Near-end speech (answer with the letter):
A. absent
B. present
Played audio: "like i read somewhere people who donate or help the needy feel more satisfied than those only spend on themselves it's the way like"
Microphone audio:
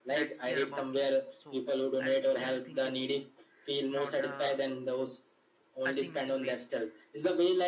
B